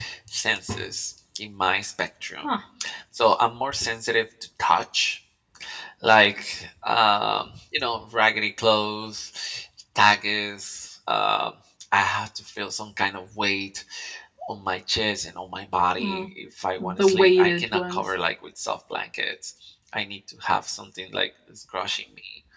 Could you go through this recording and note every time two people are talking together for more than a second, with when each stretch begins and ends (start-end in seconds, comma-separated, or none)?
16.8-18.0